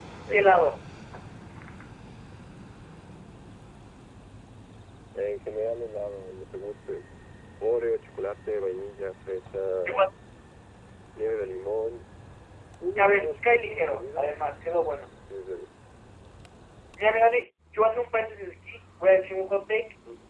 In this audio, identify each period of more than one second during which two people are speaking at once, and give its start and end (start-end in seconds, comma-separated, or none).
13.0-14.3